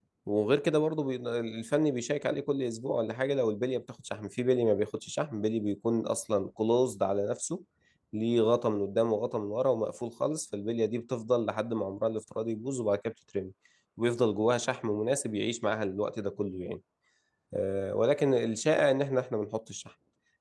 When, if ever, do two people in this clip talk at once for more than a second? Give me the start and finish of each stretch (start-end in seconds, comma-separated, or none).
none